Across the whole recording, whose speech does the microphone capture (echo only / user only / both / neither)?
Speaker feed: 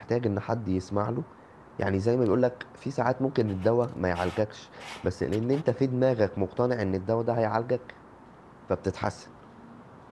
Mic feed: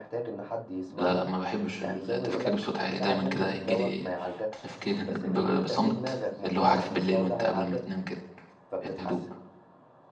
both